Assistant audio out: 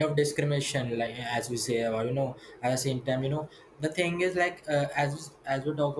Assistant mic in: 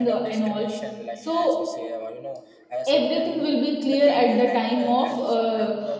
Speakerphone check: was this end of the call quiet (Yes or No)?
No